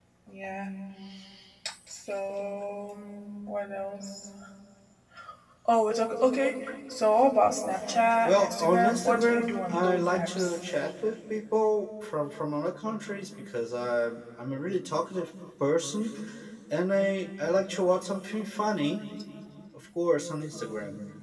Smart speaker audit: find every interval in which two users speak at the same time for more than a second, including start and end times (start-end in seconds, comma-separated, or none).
8.2-10.6